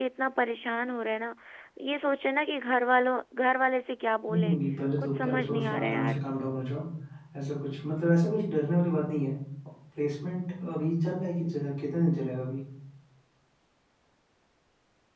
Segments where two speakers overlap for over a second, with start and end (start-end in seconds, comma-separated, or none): 5.0-6.2